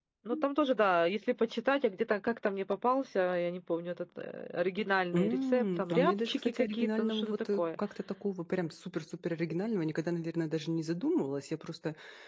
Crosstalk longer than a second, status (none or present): present